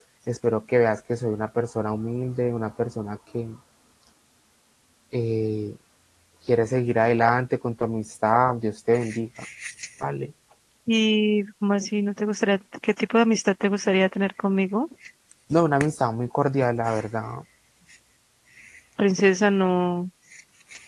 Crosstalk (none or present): none